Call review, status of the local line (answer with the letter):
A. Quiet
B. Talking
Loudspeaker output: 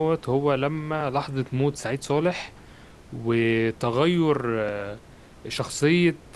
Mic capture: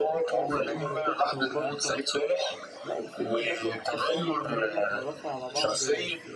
B